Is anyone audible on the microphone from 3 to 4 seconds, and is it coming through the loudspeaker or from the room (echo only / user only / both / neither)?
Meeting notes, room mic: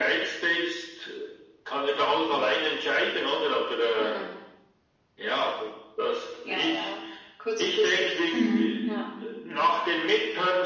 echo only